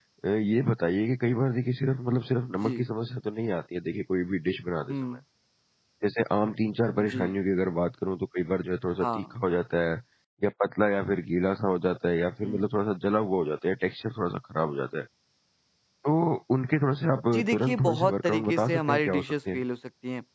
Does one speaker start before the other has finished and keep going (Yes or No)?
Yes